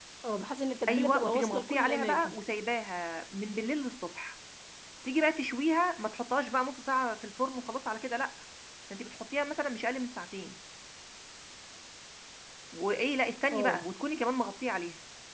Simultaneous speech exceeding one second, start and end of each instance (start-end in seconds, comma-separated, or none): 0.9-2.4